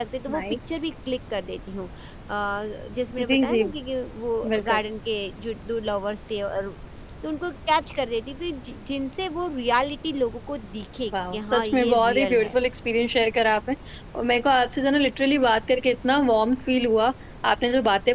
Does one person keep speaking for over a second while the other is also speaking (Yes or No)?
Yes